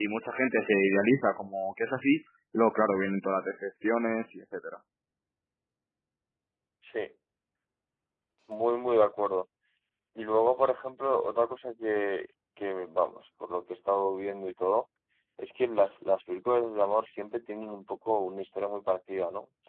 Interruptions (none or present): none